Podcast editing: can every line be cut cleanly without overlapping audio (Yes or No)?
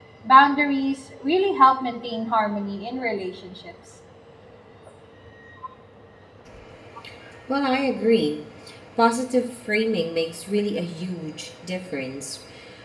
Yes